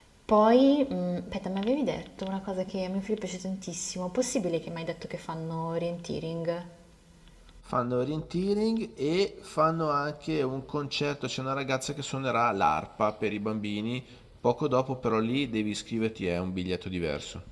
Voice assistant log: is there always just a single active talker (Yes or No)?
Yes